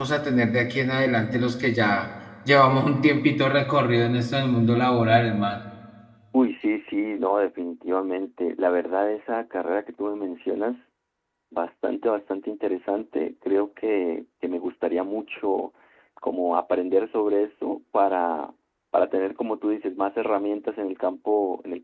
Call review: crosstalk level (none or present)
none